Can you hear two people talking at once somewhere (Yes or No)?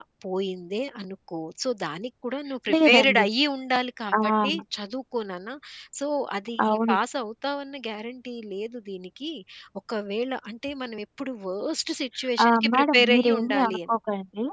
Yes